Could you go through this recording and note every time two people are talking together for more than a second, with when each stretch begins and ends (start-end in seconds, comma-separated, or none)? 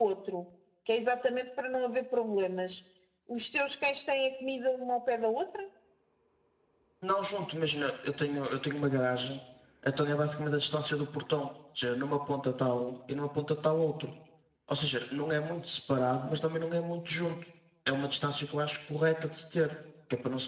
none